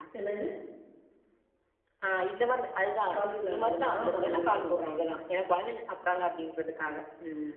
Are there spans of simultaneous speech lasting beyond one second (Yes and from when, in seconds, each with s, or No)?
Yes, from 3.5 s